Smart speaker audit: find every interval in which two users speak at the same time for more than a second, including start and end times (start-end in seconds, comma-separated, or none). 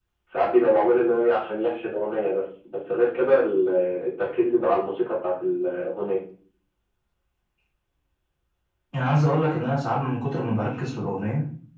none